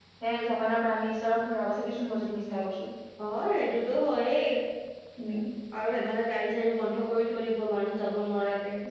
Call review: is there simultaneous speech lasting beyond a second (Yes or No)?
No